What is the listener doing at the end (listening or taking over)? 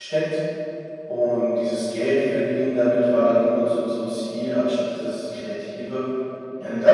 listening